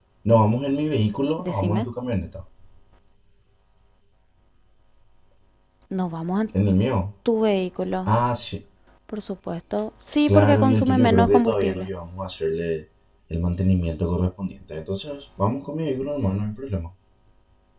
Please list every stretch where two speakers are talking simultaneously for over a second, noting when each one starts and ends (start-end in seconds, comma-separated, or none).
10.3-11.9